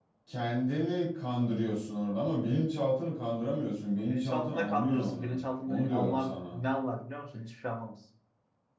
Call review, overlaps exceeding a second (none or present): present